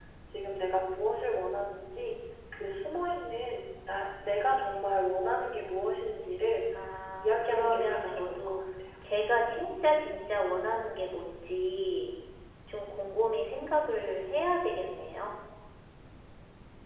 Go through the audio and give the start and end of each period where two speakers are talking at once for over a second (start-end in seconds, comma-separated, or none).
7.2-8.6